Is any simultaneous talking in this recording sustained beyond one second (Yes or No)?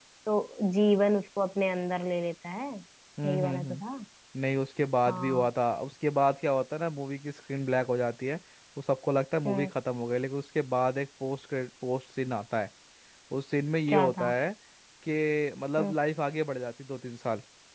No